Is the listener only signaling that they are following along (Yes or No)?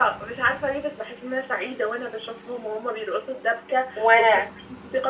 Yes